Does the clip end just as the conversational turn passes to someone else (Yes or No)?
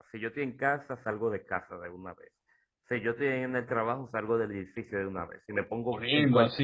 Yes